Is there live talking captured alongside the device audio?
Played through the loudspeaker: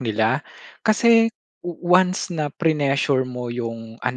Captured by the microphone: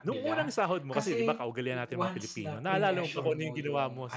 Yes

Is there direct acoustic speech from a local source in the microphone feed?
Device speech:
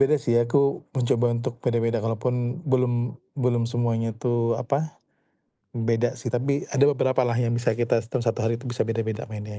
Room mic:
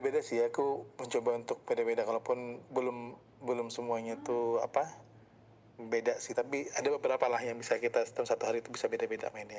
Yes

